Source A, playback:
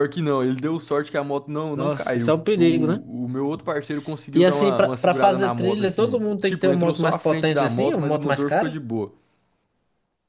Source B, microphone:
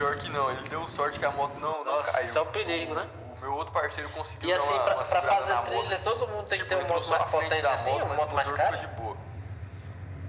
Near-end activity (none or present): none